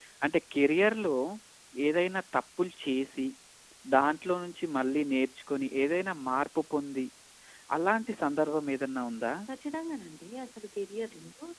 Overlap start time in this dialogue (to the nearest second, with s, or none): none